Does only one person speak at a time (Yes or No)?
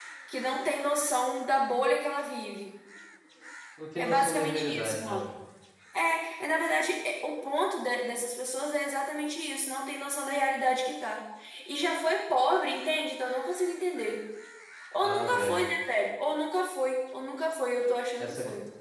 No